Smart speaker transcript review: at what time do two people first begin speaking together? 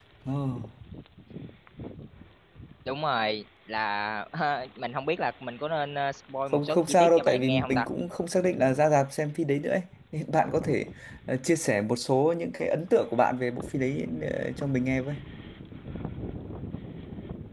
6.5 s

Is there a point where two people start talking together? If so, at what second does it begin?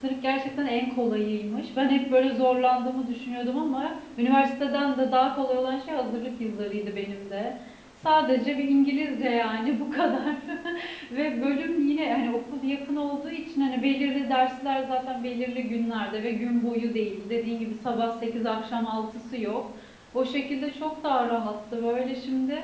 none

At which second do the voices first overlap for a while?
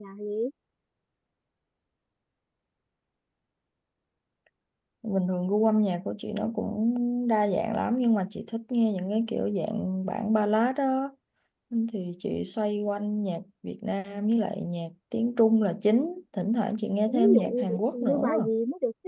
17.1 s

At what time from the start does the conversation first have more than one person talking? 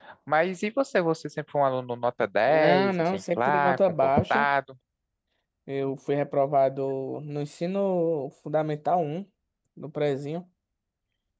2.5 s

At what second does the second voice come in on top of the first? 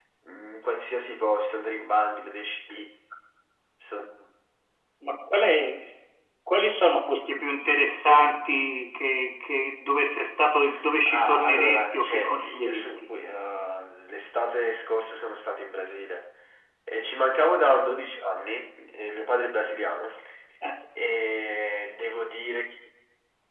11.1 s

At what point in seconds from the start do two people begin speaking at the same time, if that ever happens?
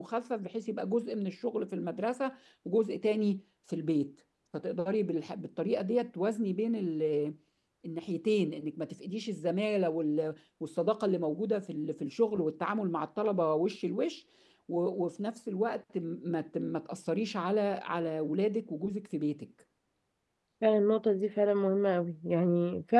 none

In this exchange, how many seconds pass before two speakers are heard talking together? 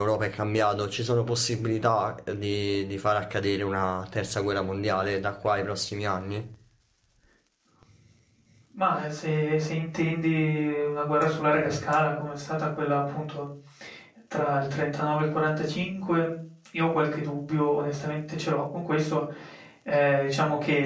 none

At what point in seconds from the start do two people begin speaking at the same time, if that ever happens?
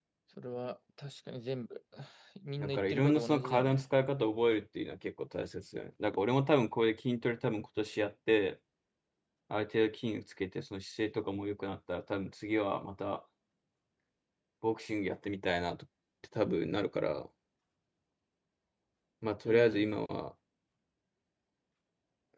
2.6 s

